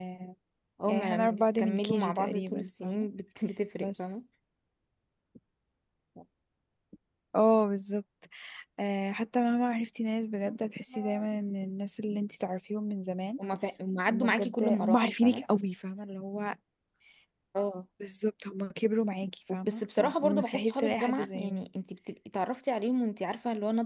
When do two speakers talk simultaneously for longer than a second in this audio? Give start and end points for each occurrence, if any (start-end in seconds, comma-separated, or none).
0.9-3.1, 14.1-15.4, 19.5-21.7